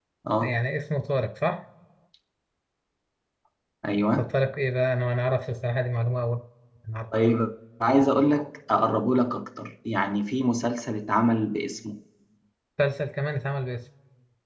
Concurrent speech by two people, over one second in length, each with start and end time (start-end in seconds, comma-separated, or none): none